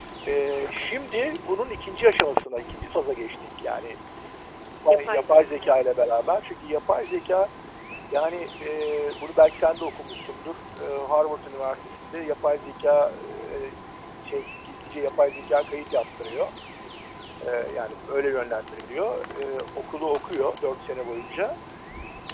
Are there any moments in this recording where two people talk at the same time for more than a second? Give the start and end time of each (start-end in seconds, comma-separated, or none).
4.9-6.1